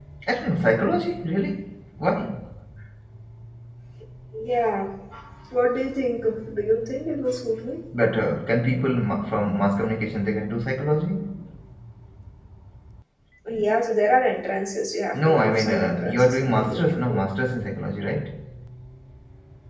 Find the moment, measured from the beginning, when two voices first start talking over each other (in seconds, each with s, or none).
15.1 s